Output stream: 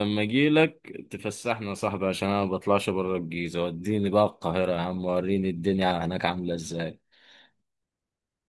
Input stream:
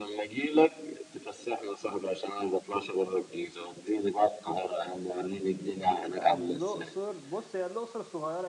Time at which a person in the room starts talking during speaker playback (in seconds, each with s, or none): 6.1 s